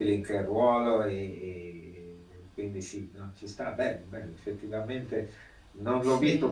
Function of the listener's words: listening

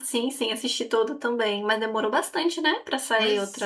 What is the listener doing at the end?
taking over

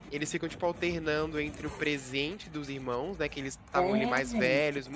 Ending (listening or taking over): listening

